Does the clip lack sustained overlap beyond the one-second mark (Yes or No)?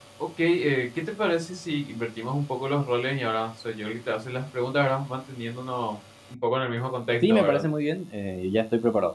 Yes